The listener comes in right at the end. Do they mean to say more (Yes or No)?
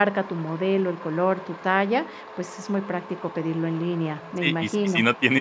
Yes